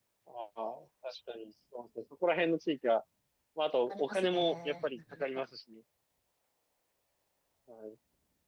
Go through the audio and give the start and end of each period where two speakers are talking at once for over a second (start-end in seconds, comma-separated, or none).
3.9-5.5